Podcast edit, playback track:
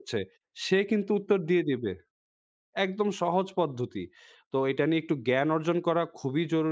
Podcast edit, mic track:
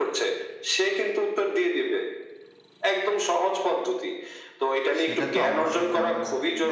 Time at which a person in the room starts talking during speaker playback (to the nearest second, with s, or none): 5 s